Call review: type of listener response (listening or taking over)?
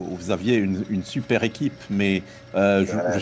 listening